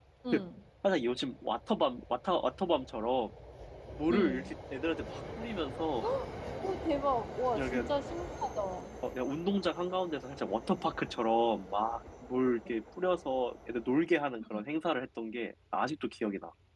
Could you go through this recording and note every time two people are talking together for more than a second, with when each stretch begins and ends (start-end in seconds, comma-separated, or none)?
none